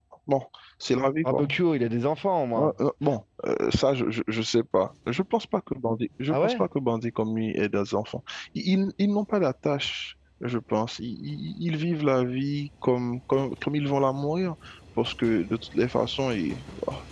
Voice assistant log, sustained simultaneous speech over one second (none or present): none